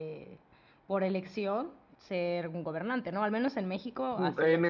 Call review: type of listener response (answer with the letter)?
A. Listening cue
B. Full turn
B